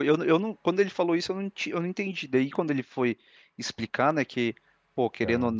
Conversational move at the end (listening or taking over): listening